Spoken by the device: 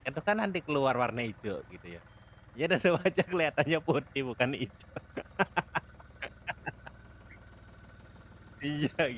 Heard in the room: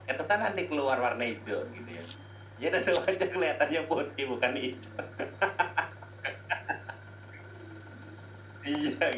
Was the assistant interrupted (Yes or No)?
No